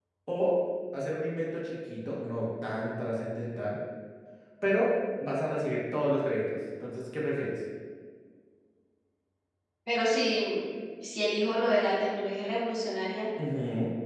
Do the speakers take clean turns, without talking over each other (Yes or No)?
Yes